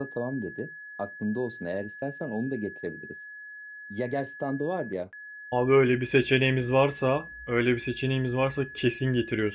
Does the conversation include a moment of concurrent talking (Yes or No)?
No